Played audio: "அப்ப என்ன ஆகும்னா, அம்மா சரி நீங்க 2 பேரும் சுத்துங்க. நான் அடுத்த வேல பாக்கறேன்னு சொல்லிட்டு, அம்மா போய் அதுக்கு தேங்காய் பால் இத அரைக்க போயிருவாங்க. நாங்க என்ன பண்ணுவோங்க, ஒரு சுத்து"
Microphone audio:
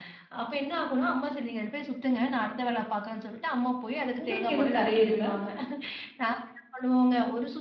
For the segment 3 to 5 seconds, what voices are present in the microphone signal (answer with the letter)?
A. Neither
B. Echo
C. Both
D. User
C